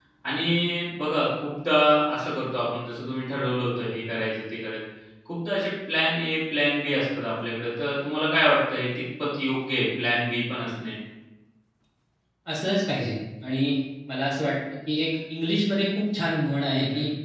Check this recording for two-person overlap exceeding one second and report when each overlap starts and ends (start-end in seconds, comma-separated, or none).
none